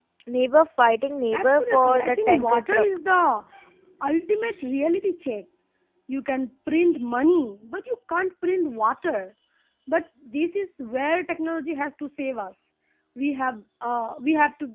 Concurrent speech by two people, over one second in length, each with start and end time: 1.4-2.9

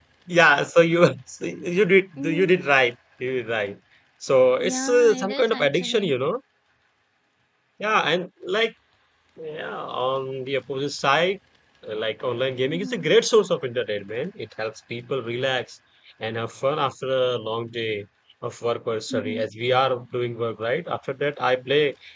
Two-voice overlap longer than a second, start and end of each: 4.6-6.1

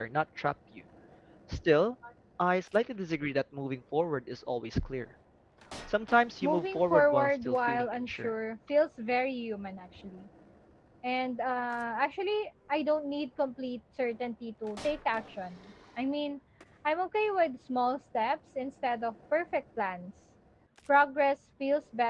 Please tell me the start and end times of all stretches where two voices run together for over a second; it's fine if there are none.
6.4-8.3

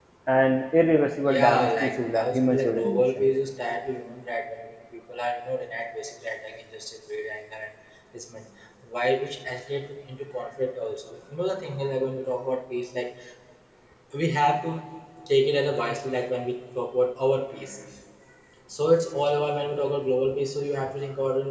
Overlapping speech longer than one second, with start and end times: 1.2-3.2

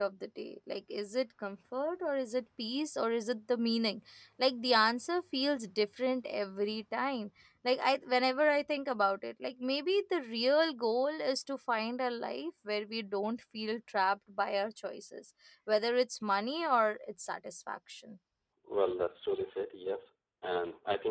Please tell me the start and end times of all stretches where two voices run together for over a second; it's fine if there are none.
none

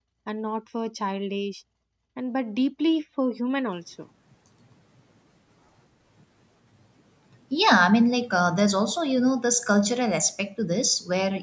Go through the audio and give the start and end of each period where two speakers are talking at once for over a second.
none

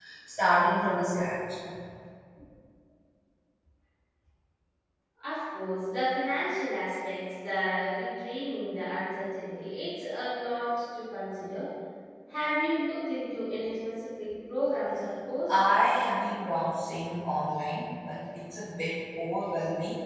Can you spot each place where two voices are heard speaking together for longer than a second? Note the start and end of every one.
none

